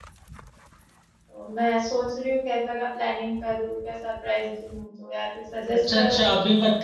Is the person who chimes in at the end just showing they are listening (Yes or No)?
No